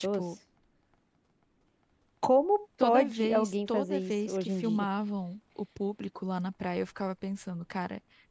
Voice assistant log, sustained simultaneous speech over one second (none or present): present